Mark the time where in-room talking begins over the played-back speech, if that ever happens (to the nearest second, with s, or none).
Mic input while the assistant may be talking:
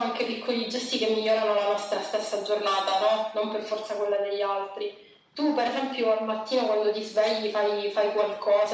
none